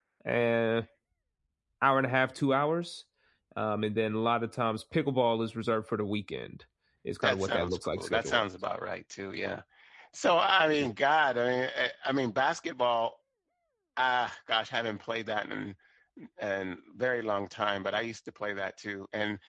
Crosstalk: present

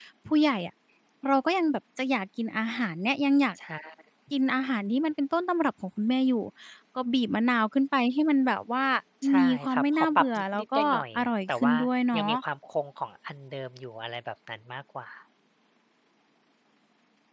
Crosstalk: present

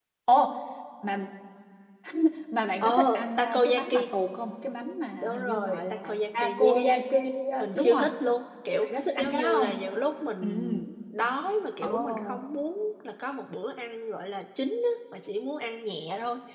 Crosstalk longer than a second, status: present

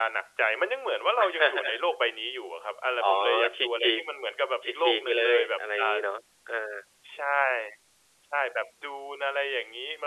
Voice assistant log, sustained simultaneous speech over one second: present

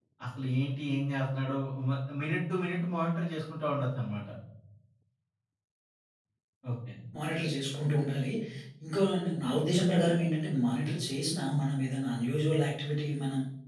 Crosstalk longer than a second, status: none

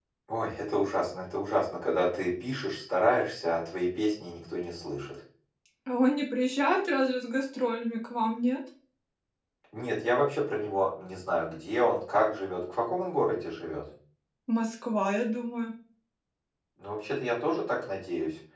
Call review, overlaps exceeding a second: none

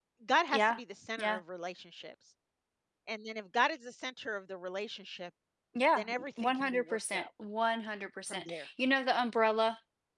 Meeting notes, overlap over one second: present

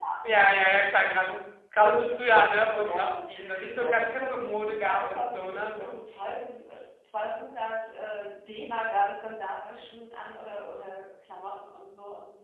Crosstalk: present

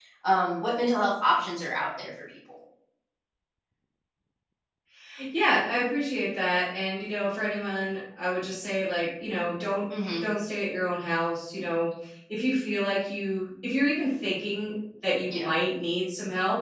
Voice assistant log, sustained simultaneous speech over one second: none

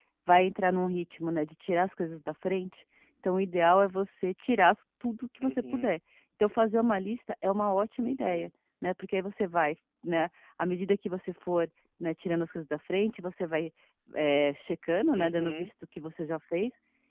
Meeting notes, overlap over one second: none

